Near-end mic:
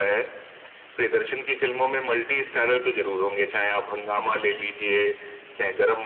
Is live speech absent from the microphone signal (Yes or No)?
Yes